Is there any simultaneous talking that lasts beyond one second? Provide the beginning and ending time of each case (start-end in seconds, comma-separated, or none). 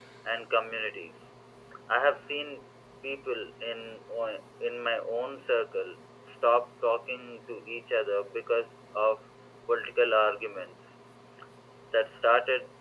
none